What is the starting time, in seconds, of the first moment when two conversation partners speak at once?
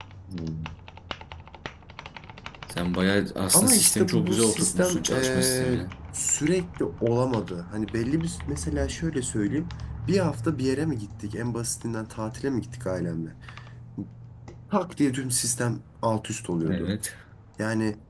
4 s

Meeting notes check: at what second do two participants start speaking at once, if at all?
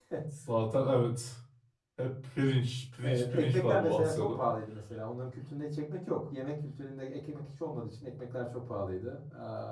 3 s

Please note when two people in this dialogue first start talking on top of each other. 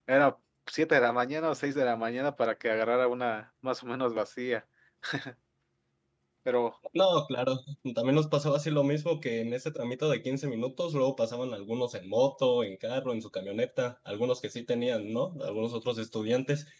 none

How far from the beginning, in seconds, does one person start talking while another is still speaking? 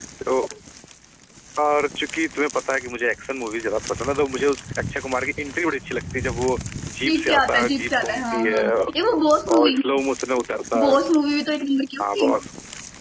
7 s

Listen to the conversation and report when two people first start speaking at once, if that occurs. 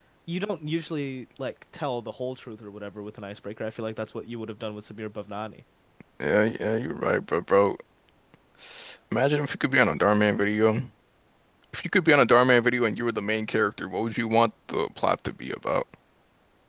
none

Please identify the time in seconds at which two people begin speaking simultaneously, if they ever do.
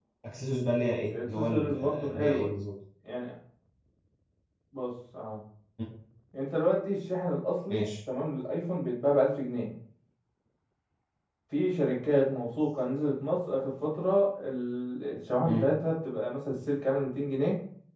1 s

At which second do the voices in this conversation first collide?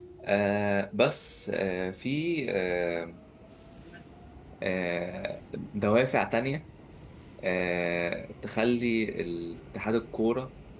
none

